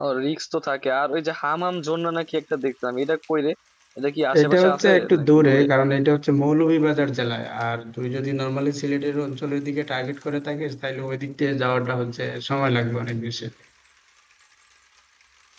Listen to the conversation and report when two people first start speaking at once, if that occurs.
4 s

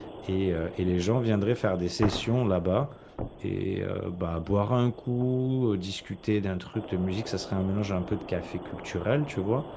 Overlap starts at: none

